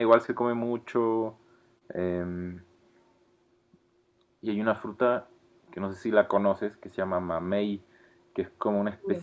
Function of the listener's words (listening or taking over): listening